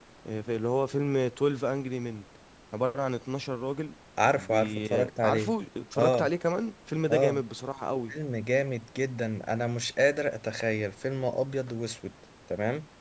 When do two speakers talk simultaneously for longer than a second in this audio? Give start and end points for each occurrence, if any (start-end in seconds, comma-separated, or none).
4.2-5.5